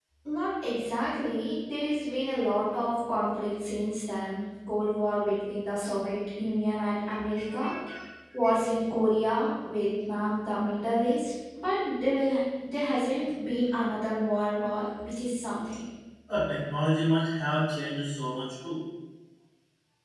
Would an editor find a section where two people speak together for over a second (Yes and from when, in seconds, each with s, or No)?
No